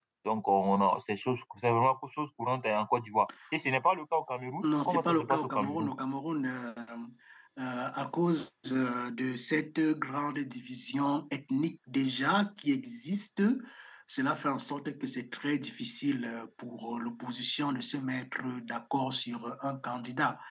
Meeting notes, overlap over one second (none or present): present